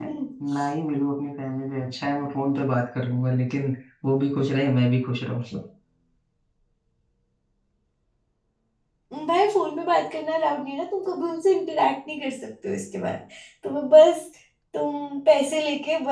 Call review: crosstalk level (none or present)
none